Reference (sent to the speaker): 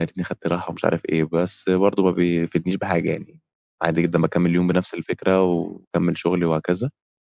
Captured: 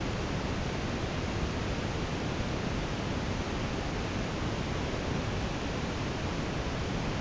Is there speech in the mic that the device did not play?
No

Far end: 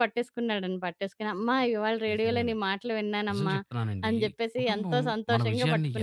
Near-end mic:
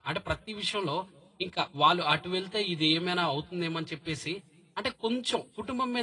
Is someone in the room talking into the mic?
Yes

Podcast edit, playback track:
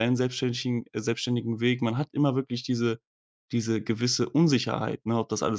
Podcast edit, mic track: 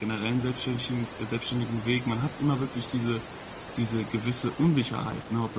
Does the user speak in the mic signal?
No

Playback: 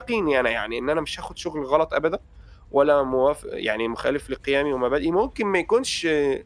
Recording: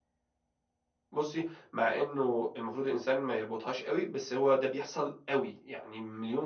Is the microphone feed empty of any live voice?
No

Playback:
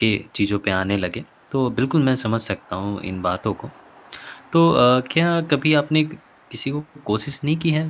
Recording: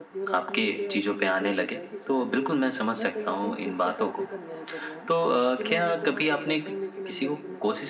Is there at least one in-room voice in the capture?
Yes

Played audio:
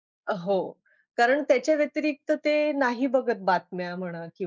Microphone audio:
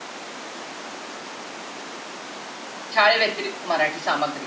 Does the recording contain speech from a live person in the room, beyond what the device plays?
Yes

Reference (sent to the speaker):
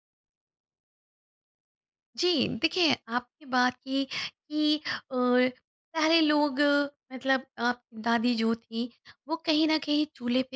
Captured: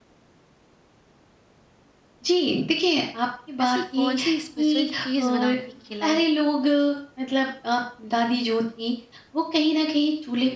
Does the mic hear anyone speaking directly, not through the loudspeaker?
Yes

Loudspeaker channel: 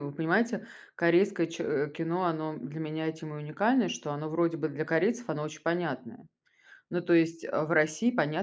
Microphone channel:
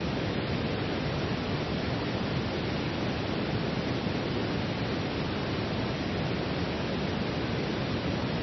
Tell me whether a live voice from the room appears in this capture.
No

